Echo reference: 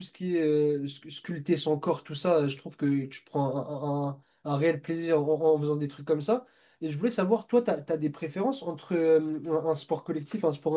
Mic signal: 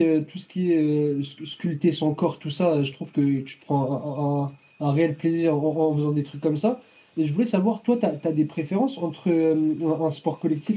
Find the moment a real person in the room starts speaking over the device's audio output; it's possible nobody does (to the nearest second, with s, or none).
none